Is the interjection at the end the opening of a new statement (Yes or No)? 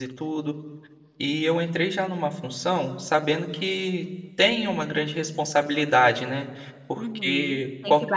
Yes